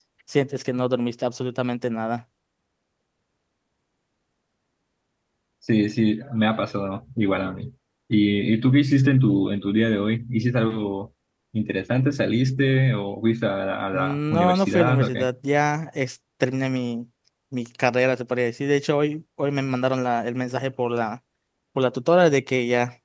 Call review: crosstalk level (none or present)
present